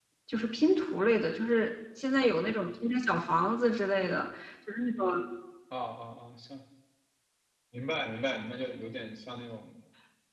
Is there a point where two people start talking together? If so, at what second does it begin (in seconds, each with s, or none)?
none